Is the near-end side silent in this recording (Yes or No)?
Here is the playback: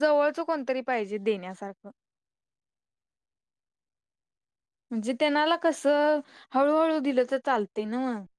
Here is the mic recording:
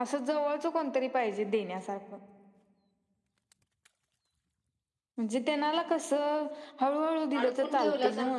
No